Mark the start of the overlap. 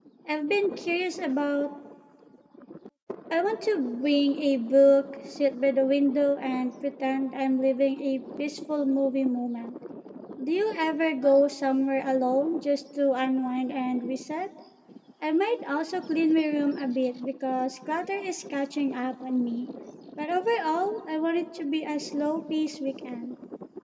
none

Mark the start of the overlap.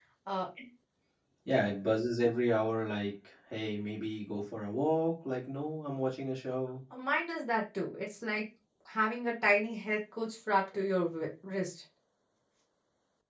none

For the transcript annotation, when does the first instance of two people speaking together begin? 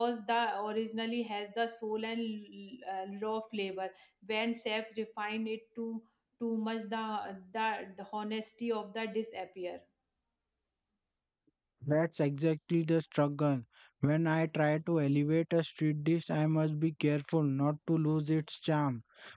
none

